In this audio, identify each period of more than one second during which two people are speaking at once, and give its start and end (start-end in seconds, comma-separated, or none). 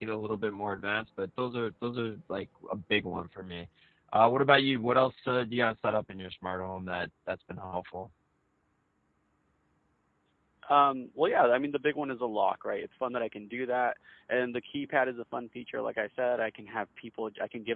none